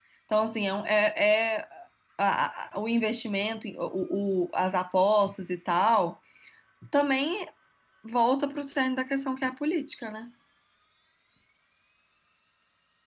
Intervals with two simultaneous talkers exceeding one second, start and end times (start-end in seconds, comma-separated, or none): none